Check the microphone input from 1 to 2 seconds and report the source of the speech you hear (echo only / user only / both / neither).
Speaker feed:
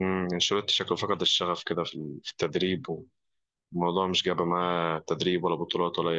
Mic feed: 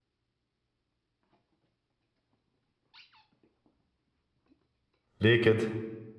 neither